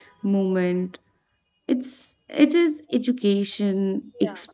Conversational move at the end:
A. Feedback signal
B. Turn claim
A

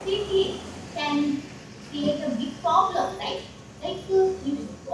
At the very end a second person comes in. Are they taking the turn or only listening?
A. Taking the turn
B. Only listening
B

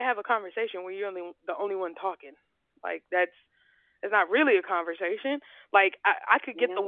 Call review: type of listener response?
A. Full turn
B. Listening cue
B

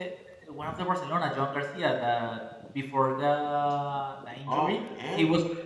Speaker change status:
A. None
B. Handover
A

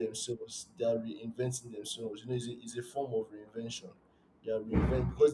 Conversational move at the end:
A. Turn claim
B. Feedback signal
B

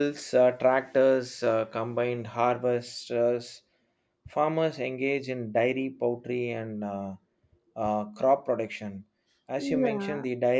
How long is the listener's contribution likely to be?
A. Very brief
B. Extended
A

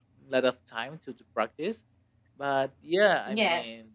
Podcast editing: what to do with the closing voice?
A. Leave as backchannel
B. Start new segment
A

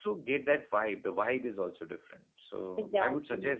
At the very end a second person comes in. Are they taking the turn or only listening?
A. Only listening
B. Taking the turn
A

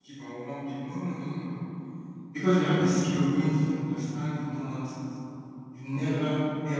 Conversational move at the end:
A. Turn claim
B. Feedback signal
B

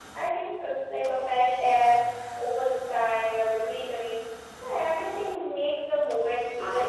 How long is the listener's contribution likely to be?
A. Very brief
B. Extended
B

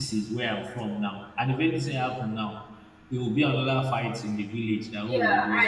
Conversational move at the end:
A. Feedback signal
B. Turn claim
B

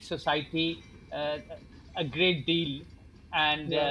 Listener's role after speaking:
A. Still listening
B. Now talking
A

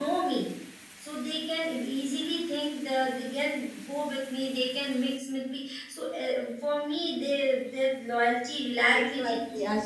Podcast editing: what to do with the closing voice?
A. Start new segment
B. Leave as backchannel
A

